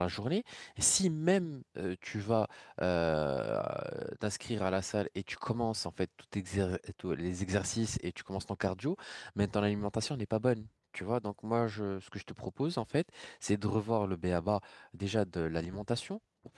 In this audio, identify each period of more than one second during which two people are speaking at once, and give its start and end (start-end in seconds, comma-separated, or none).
none